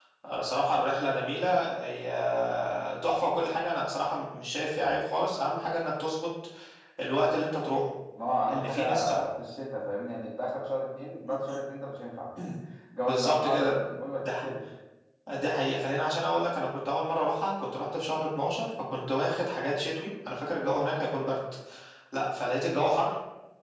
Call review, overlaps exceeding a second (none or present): present